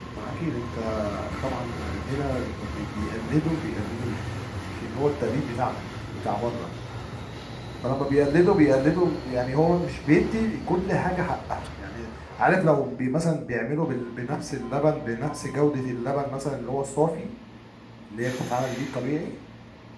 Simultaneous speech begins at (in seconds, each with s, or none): none